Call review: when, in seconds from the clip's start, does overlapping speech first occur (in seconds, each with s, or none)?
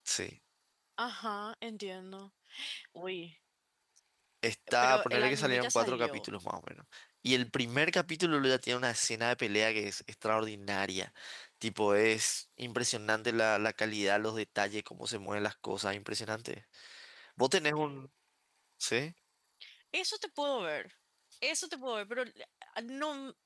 4.8 s